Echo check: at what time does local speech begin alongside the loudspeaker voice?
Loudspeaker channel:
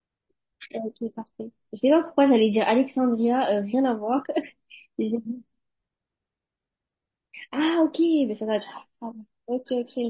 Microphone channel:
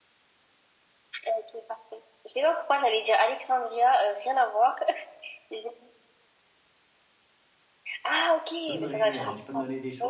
9 s

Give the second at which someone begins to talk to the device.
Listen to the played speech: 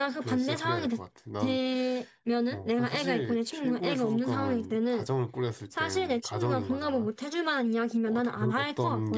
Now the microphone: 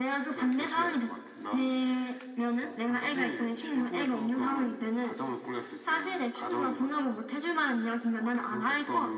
none

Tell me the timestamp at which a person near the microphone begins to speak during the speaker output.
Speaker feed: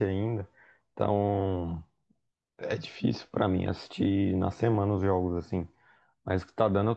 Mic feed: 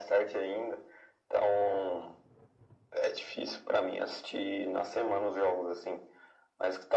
none

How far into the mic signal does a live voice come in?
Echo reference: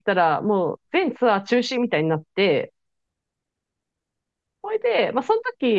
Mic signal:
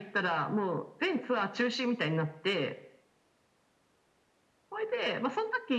none

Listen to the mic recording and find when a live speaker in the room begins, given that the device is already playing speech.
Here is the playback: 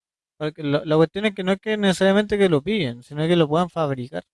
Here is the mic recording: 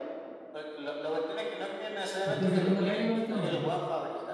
2 s

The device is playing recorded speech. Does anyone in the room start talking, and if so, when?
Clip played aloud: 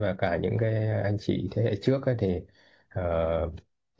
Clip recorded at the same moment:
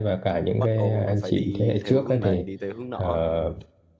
0 s

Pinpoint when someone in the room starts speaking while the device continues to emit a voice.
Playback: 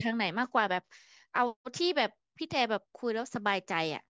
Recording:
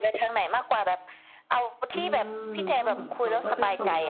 2 s

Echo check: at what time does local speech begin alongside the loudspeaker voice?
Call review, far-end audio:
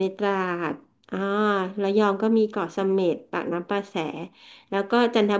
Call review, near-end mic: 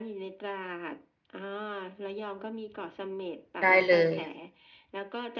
4 s

